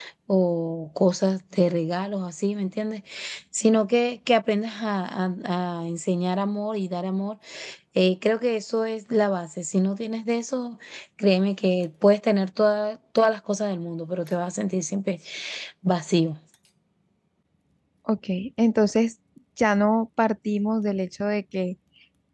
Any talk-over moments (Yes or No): No